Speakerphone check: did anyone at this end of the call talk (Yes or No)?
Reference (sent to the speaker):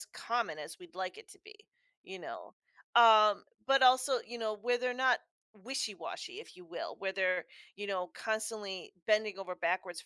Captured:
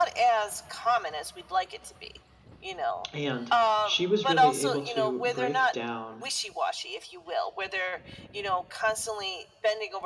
Yes